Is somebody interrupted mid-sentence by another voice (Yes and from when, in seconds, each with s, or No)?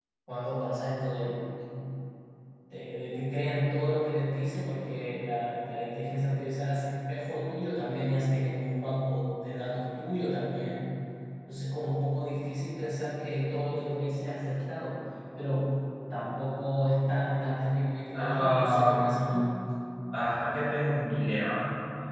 Yes, from 18.1 s